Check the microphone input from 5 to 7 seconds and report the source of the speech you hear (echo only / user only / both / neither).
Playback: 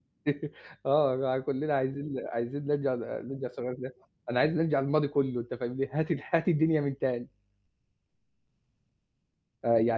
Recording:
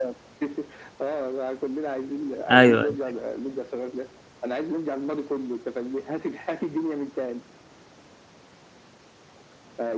echo only